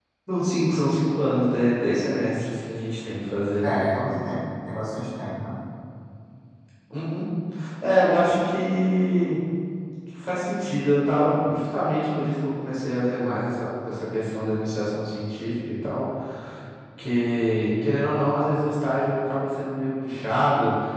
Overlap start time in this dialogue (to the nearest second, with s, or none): none